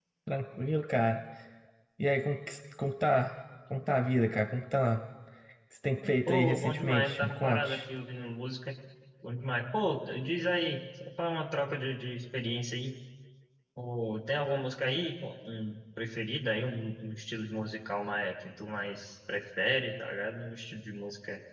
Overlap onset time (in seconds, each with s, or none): 6.3 s